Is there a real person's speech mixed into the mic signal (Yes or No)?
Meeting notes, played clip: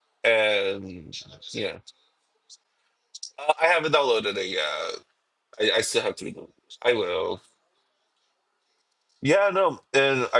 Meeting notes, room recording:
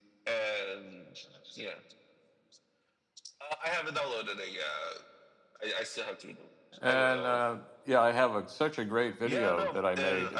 Yes